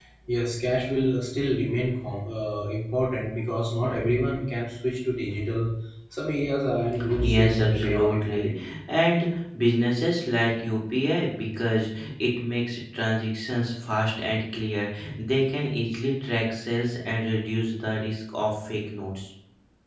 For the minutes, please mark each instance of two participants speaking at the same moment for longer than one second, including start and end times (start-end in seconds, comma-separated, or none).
7.2-8.7